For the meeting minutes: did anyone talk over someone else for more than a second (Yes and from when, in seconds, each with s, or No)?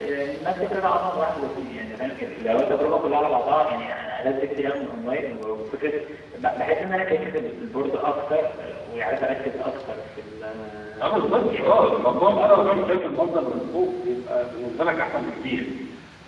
Yes, from 11.2 s